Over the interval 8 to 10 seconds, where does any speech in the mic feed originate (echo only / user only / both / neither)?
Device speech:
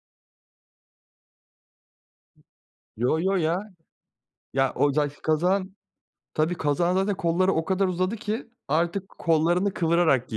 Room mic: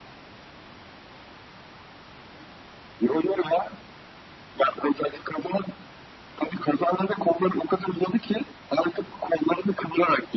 echo only